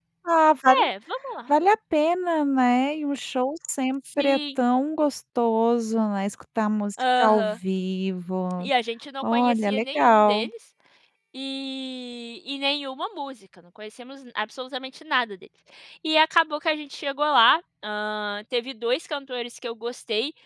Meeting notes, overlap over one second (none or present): present